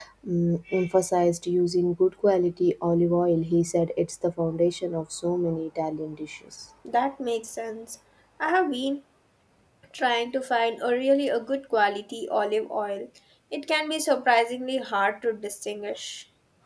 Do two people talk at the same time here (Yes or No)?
No